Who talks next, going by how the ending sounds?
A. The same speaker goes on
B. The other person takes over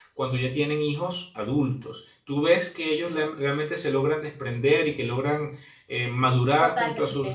B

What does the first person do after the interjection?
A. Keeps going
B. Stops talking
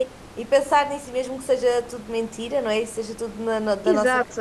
B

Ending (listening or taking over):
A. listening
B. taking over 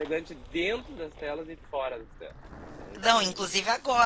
B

